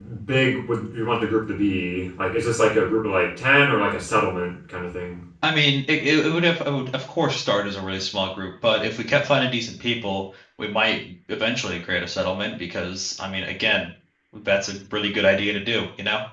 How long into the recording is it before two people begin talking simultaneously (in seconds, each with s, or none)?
none